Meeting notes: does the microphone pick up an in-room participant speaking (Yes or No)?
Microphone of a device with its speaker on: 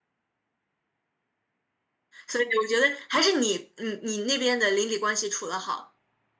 Yes